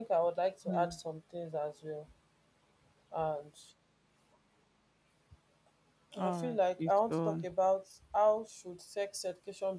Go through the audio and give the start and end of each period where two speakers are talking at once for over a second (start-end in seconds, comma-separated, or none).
6.2-7.5